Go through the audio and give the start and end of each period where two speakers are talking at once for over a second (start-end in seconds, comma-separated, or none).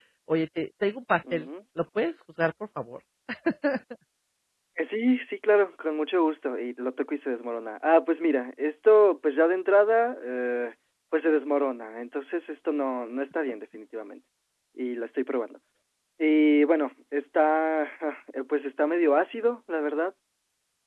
none